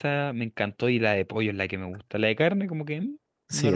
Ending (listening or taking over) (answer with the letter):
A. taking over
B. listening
A